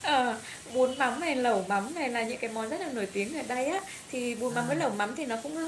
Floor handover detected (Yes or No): No